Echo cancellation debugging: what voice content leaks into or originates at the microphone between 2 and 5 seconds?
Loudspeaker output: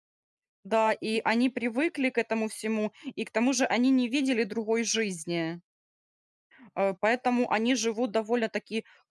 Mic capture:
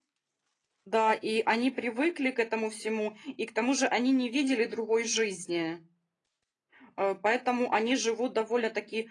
echo only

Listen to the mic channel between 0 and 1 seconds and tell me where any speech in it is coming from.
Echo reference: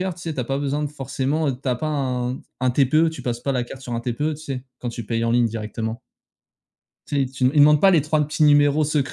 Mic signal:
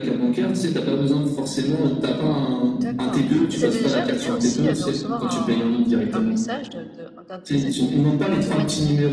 echo only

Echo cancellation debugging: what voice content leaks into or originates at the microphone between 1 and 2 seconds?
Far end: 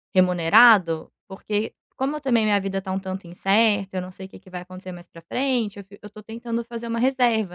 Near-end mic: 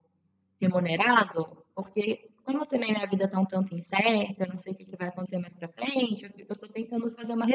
echo only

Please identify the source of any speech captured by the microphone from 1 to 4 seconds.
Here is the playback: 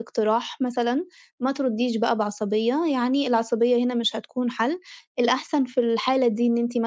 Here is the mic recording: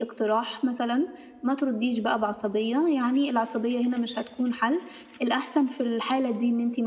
echo only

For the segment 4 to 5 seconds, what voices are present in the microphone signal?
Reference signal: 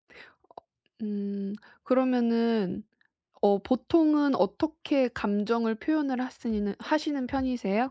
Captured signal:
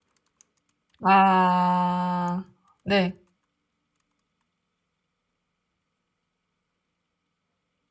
neither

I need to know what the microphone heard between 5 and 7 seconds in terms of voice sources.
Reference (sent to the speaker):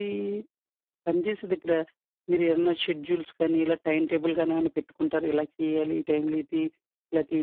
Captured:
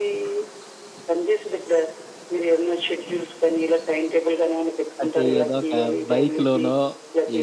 both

